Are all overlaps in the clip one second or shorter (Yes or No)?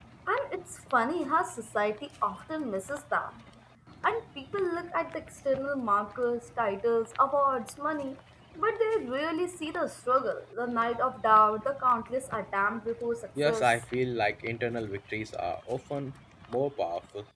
Yes